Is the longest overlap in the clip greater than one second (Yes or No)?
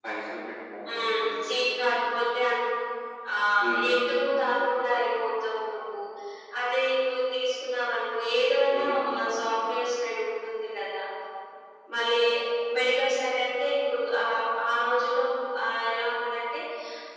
No